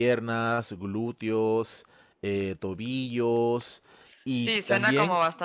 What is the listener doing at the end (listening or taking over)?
taking over